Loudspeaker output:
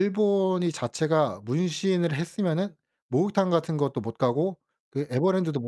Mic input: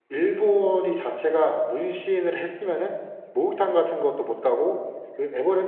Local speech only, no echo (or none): none